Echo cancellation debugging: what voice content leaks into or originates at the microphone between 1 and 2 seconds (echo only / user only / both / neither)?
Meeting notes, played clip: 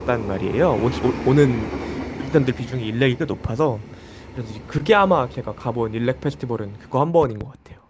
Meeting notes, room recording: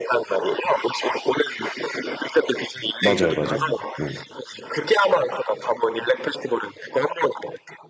echo only